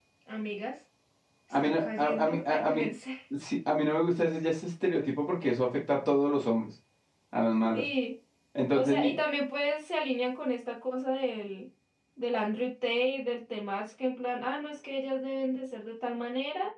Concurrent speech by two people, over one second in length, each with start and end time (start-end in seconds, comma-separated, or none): 1.5-2.8